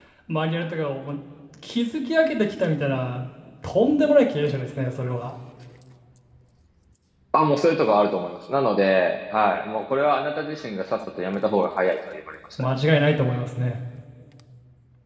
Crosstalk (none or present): none